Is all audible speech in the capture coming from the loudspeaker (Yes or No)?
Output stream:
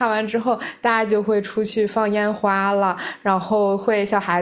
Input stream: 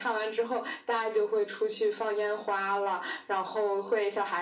Yes